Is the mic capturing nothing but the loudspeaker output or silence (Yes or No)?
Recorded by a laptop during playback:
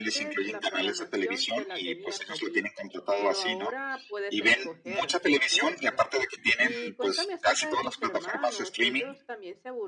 No